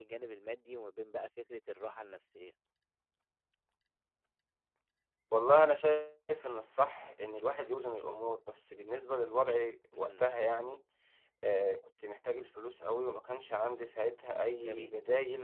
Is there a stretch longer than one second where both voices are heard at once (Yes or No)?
No